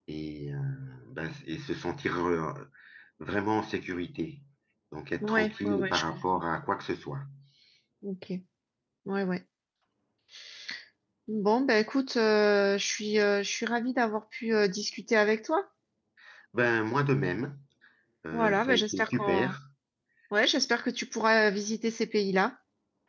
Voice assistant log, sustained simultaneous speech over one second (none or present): present